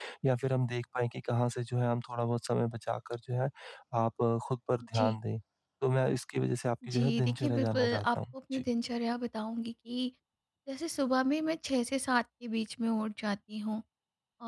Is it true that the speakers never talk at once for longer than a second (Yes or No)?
No